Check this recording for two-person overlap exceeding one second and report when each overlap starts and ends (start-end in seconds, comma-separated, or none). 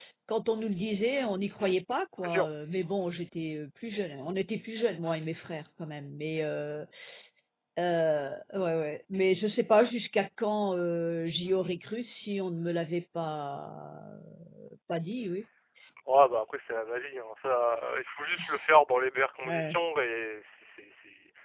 none